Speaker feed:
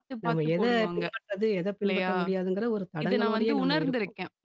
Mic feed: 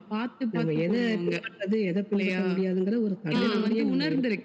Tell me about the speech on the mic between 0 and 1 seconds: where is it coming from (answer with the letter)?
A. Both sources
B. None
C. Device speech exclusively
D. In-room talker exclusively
C